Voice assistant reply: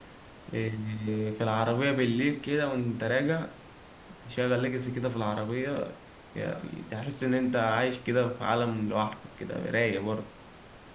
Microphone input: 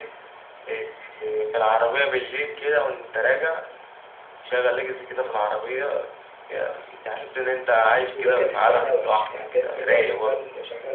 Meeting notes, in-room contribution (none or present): present